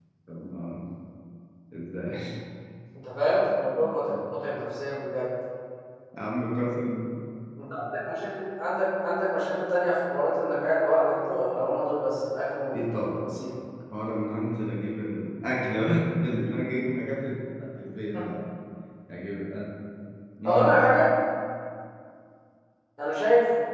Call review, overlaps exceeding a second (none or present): none